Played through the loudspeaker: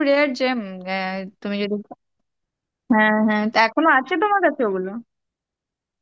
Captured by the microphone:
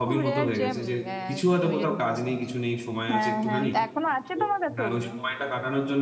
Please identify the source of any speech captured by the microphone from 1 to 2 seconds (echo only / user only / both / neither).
both